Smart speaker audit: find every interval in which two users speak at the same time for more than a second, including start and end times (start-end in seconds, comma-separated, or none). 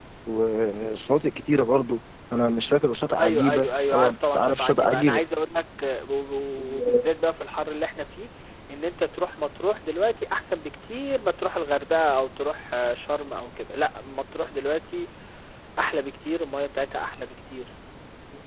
3.2-5.2